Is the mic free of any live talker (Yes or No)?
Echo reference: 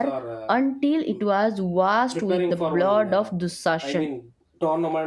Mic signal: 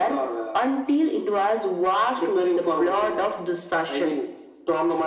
Yes